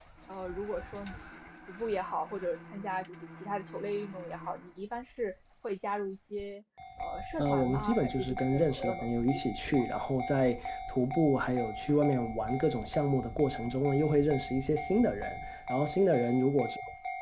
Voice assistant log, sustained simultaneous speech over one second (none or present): present